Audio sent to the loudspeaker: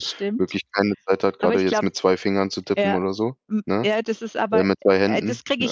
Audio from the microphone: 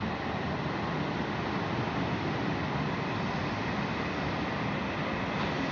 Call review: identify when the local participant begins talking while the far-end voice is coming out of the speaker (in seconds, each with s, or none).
none